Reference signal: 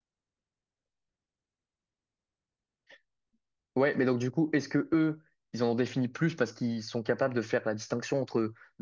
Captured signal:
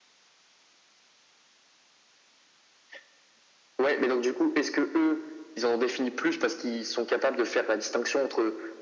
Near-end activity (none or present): none